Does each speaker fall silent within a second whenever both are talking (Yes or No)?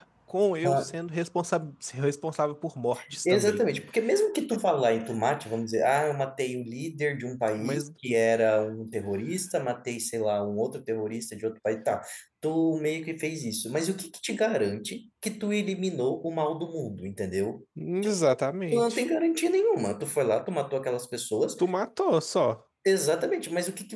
Yes